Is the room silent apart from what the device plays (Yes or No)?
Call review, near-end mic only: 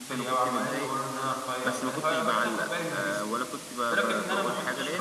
No